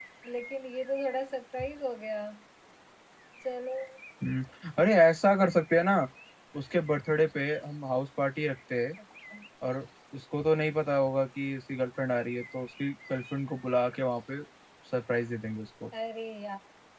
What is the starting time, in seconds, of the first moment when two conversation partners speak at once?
none

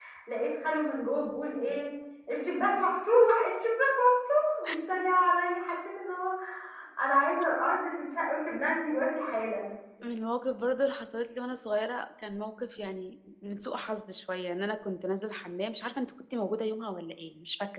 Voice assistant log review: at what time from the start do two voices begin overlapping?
none

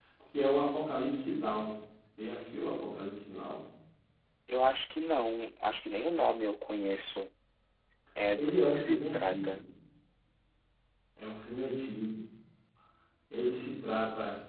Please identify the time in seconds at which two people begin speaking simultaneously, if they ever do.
8.3 s

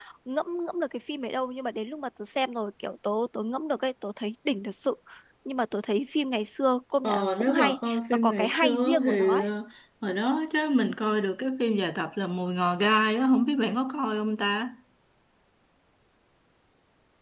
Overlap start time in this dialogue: 7.0 s

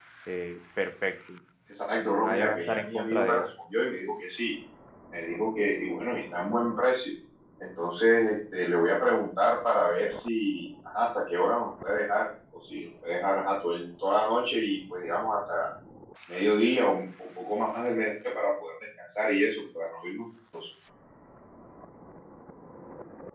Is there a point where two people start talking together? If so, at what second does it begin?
2.0 s

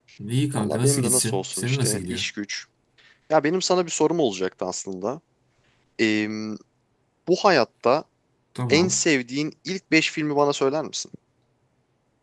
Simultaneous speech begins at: 0.6 s

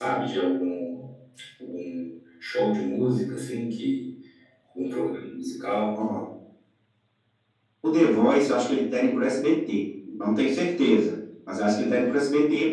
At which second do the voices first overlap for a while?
none

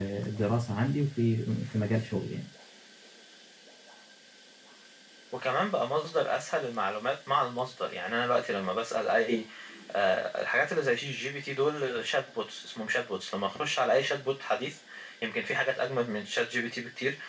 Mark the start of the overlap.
none

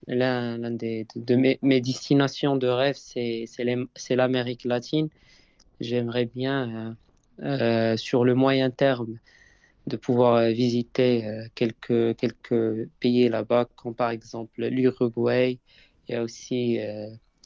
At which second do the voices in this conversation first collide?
none

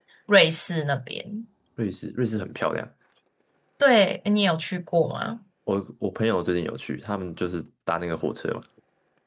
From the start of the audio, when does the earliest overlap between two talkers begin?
none

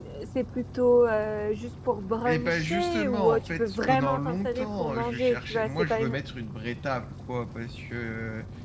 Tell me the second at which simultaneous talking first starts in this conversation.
2.2 s

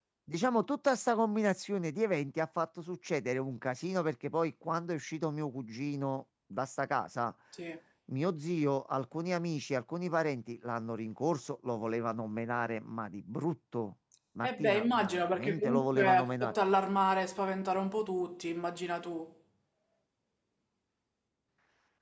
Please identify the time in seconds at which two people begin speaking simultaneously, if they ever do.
14.4 s

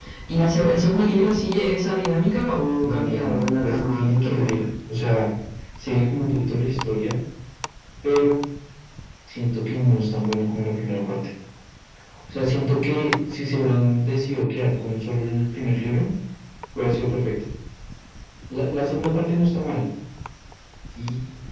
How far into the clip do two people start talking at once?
2.8 s

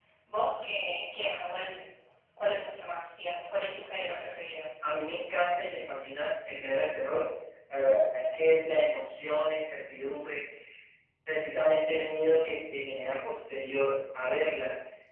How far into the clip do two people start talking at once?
none

